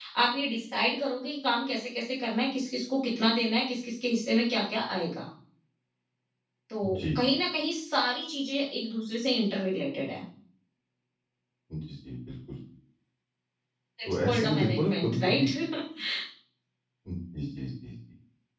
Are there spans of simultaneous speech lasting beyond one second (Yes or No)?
Yes